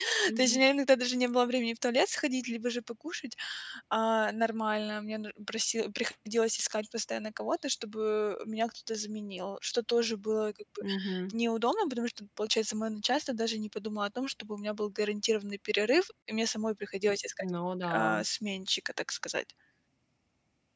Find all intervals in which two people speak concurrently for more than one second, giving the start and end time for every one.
none

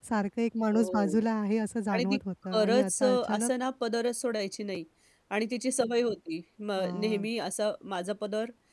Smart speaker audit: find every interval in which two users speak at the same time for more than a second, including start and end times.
1.9-3.5

